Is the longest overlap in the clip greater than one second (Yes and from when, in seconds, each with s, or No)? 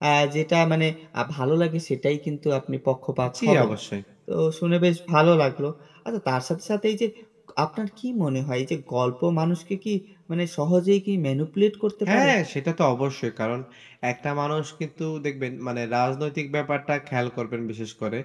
No